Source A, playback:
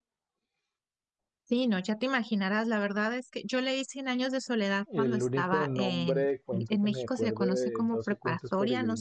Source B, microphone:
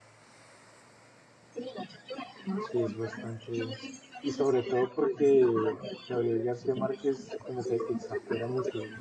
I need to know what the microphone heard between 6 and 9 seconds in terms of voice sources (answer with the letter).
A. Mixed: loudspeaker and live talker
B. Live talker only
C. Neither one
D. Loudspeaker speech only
A